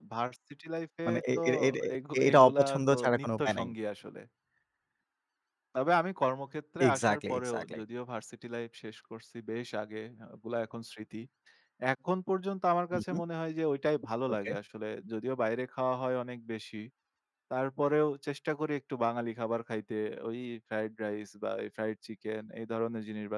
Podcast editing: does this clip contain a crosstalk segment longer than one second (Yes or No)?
Yes